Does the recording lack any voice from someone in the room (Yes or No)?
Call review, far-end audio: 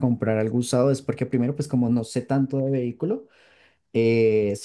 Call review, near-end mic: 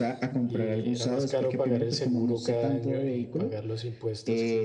No